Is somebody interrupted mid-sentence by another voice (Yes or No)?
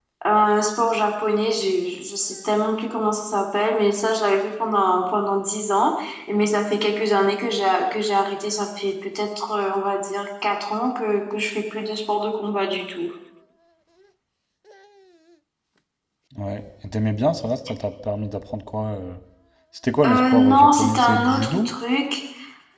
Yes